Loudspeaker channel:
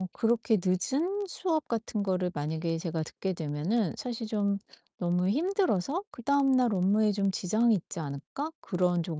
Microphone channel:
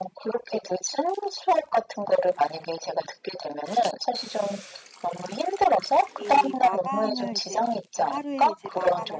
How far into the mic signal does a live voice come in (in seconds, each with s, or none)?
6.2 s